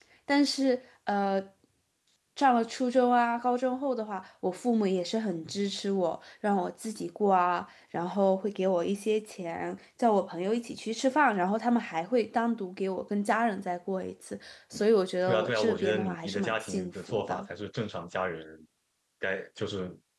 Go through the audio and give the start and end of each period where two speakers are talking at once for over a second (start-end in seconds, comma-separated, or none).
15.3-17.5